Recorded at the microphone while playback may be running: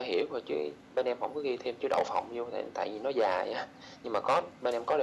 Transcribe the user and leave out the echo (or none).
none